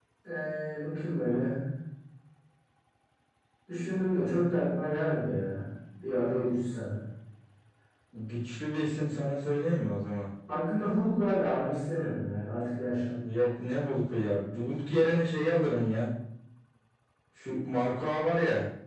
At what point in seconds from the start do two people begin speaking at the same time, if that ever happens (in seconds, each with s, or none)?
none